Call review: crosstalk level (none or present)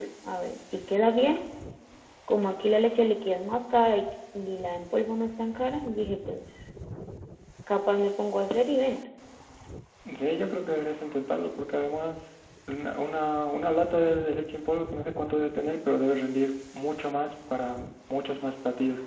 none